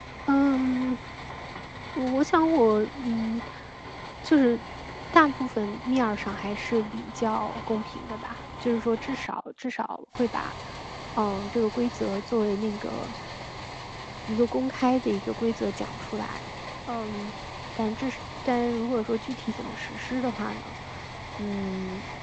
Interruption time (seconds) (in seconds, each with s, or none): none